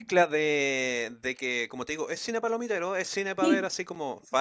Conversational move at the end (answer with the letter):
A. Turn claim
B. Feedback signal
B